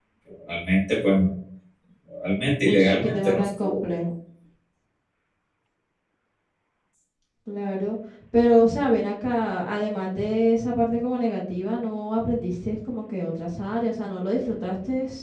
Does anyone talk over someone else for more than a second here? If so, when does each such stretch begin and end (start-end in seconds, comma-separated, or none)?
2.6-3.9